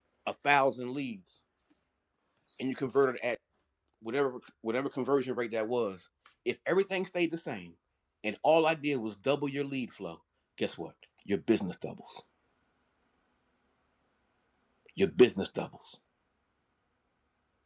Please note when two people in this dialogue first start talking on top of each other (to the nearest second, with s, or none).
none